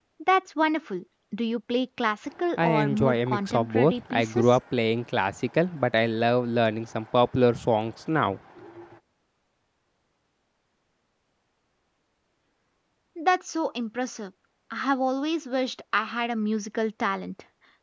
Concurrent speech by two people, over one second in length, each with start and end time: 2.6-4.6

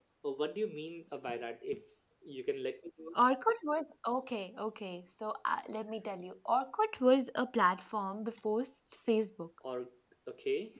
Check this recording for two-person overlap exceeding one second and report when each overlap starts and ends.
none

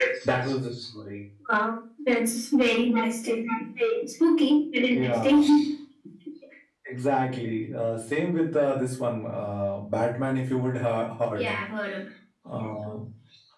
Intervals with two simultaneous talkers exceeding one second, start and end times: none

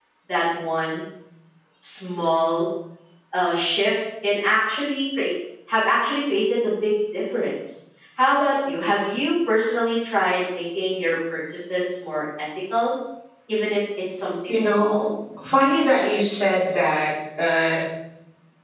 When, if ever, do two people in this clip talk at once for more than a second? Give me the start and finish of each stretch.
none

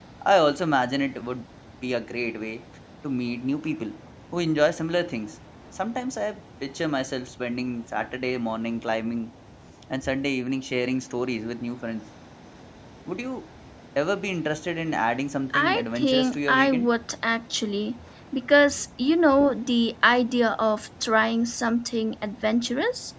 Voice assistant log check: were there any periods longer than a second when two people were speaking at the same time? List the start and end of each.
15.5-16.9

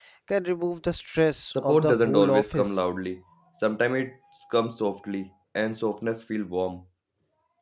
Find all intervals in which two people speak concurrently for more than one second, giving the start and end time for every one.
1.5-2.9

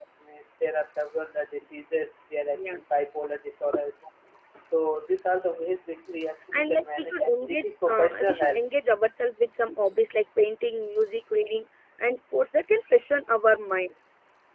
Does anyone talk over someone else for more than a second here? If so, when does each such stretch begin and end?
6.5-8.6

